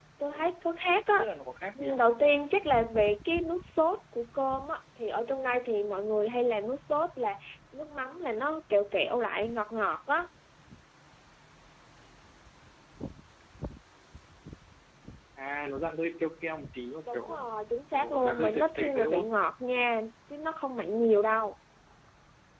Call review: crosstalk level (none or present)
present